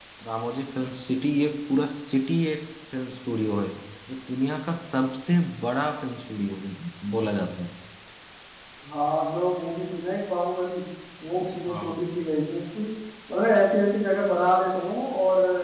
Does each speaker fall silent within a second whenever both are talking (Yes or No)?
Yes